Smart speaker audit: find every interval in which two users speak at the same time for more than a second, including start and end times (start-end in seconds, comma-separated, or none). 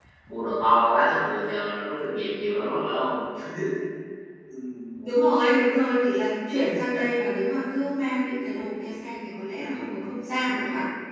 none